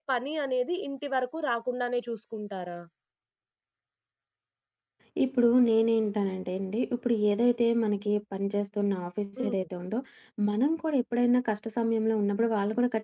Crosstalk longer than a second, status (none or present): none